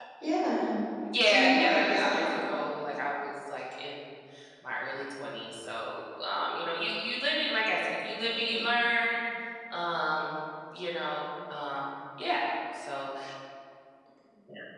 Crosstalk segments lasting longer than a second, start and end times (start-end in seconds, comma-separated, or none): 1.3-2.5